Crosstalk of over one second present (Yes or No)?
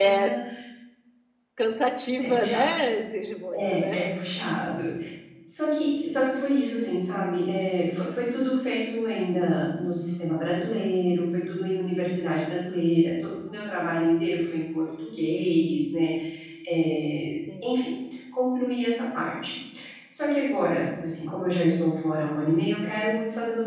No